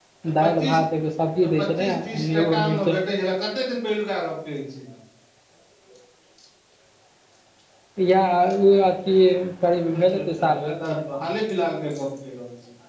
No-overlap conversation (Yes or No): No